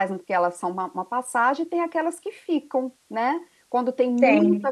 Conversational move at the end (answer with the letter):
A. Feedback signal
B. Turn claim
A